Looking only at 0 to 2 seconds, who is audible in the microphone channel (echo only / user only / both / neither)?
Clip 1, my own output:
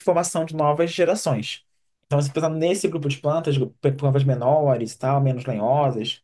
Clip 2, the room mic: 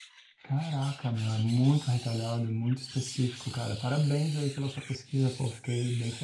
user only